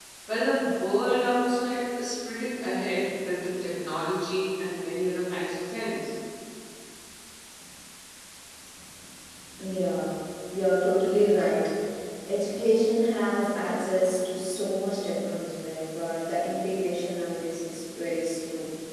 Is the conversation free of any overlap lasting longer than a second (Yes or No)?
Yes